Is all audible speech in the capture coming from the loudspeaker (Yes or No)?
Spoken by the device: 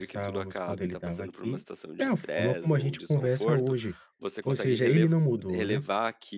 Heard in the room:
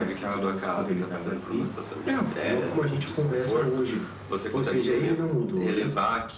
Yes